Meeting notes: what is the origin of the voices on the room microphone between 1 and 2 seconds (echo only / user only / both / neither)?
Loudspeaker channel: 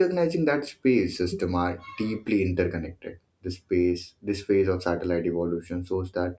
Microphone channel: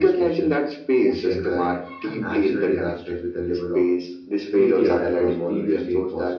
both